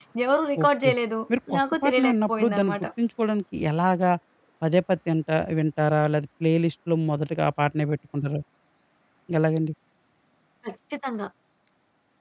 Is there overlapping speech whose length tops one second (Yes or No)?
Yes